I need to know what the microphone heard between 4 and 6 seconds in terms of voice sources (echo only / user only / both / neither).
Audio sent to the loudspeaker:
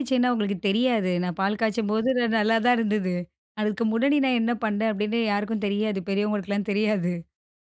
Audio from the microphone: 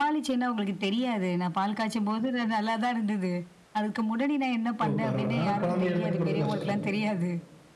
both